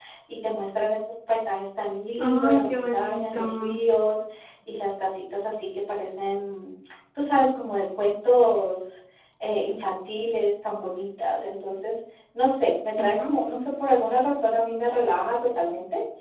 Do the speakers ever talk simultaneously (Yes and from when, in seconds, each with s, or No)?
Yes, from 2.2 s